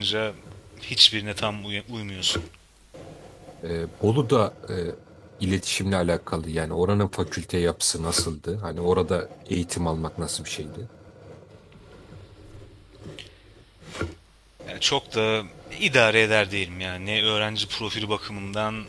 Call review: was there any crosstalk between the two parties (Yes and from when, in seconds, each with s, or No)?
No